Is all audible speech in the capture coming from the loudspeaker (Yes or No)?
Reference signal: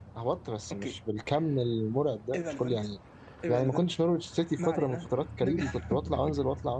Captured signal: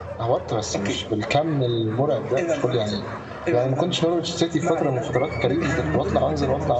No